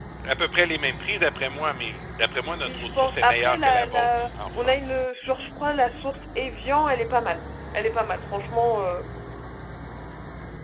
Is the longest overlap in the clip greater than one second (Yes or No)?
Yes